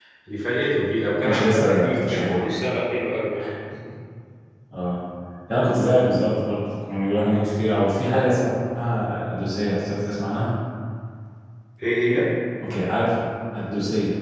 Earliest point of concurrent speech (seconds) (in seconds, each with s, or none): 1.2 s